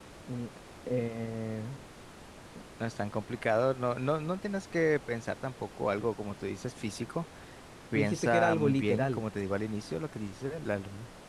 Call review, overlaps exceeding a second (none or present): present